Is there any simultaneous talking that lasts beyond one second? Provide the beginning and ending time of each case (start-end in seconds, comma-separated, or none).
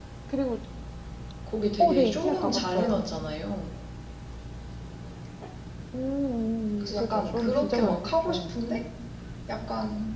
1.8-3.1, 6.9-8.5